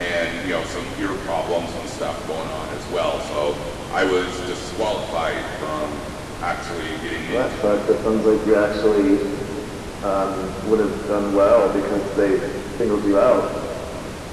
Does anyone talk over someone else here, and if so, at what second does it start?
7.3 s

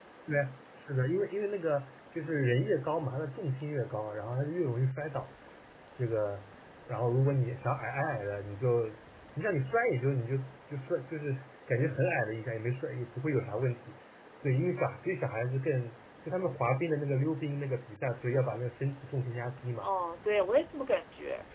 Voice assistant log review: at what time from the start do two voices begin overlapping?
none

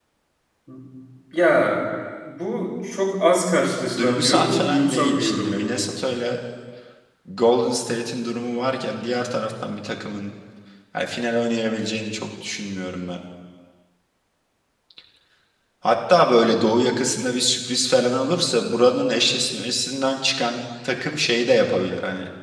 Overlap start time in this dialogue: 4.0 s

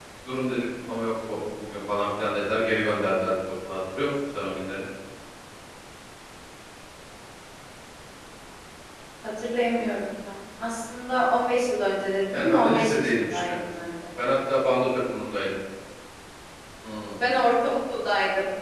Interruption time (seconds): 12.3 s

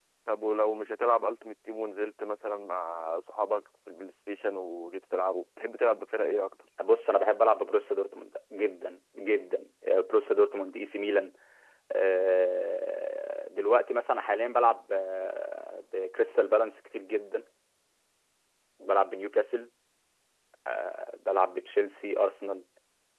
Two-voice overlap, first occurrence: none

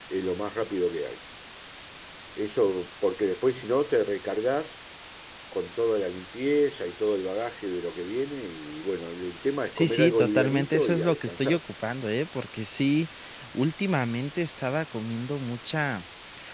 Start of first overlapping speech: 9.7 s

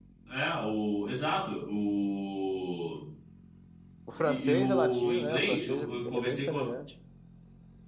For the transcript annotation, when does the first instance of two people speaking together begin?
4.1 s

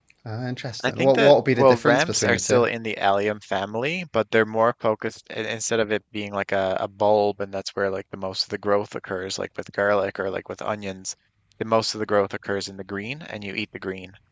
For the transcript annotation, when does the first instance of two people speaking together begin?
0.9 s

